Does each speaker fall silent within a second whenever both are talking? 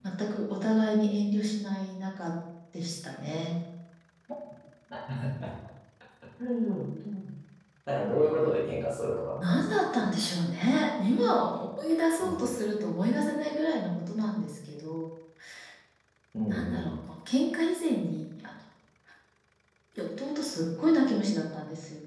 Yes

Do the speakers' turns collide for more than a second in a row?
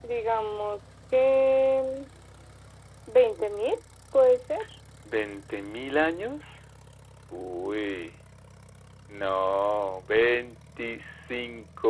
No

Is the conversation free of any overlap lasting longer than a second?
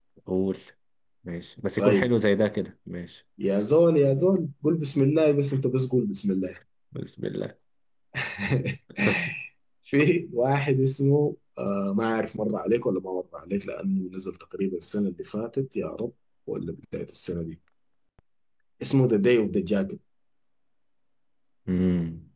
Yes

